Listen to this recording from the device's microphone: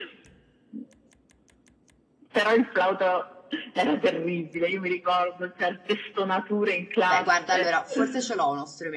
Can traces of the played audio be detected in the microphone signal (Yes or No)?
Yes